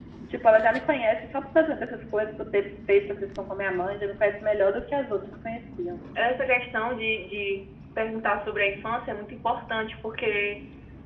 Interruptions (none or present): none